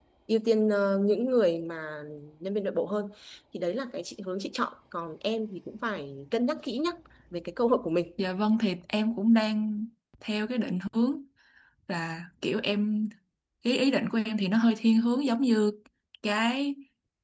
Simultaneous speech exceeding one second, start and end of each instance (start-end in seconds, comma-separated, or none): none